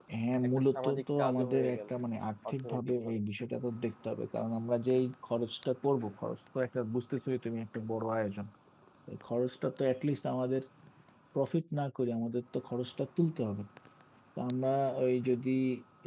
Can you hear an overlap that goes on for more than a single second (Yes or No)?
Yes